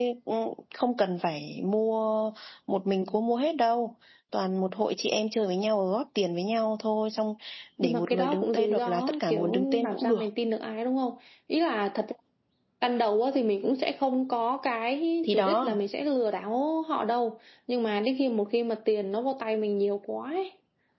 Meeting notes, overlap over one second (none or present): present